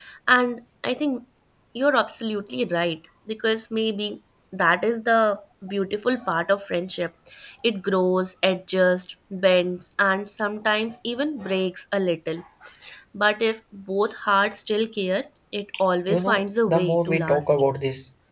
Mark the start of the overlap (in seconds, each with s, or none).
16.1 s